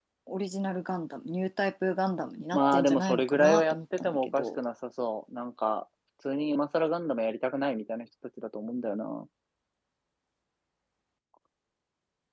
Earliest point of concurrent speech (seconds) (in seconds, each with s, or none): 2.5 s